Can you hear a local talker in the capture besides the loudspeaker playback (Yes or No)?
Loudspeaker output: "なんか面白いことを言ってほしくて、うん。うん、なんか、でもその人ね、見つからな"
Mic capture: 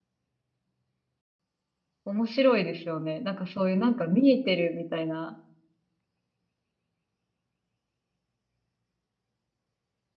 Yes